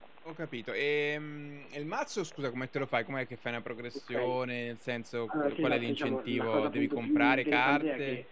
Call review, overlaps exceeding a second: present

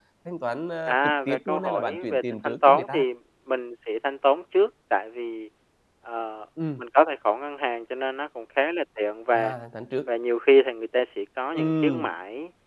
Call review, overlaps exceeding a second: present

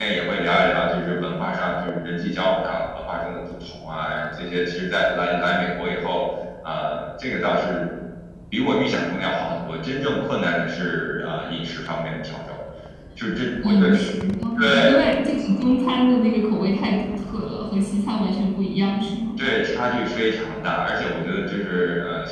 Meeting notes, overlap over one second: none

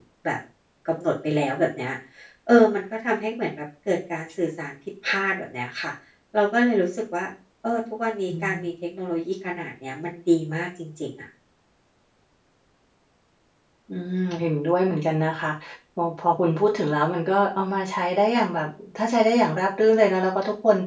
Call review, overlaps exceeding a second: none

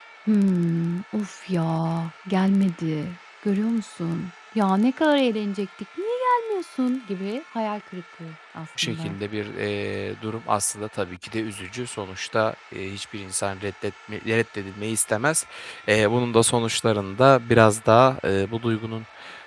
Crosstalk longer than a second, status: none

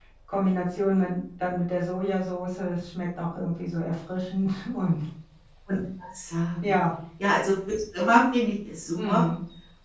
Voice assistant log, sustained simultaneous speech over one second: none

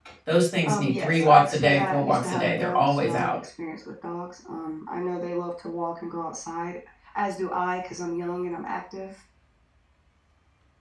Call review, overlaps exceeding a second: present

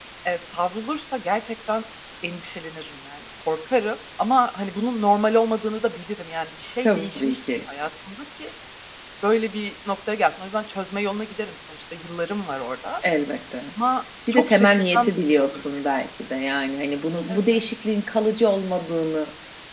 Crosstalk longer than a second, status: present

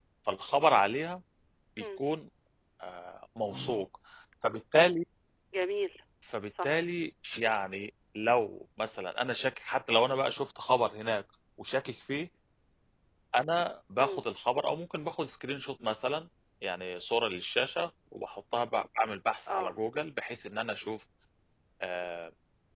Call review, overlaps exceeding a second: none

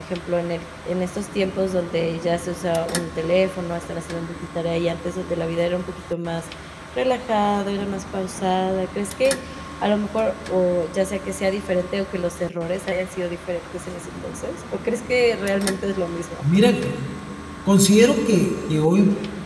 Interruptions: none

